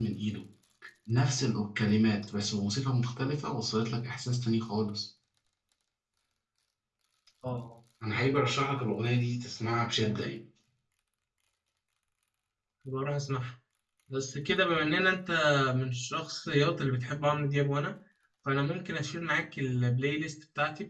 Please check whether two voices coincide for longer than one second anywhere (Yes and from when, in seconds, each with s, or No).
No